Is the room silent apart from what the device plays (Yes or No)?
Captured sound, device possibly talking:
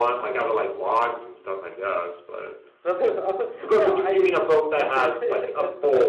Yes